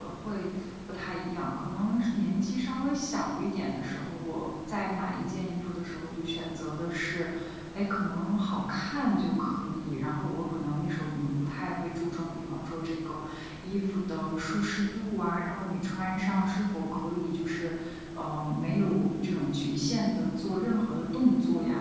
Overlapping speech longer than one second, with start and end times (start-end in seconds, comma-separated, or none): none